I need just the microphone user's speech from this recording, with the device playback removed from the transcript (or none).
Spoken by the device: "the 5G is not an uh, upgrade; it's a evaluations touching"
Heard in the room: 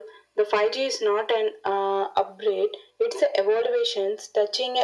none